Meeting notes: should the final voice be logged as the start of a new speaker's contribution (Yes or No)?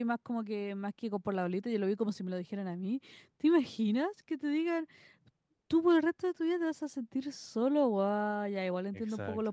No